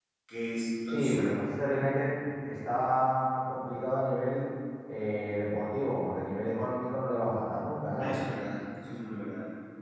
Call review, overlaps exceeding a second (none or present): none